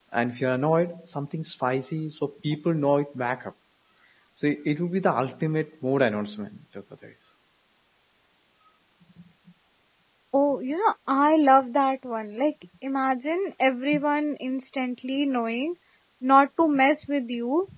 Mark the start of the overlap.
none

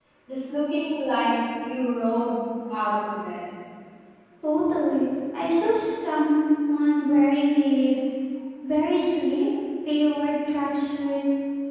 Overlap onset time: none

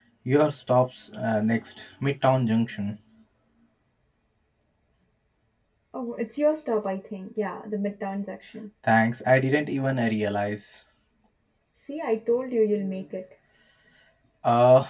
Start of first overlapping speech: none

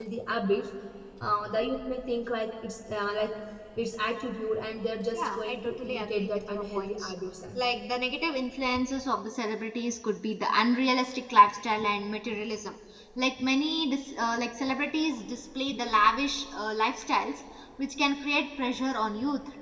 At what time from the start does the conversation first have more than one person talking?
5.1 s

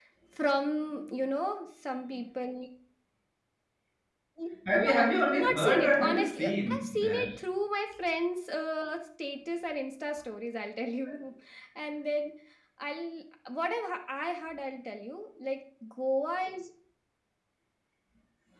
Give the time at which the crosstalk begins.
4.7 s

